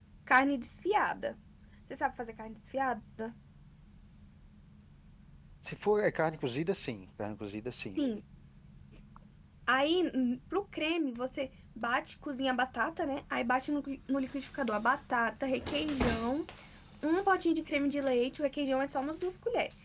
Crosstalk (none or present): none